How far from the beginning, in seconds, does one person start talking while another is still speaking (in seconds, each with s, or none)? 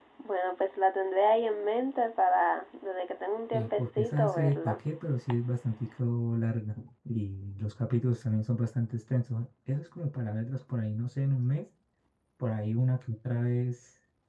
3.5 s